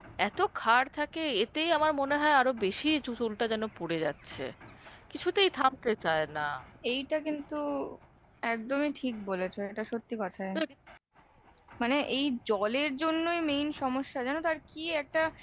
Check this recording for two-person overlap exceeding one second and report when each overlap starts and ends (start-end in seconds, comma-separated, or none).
none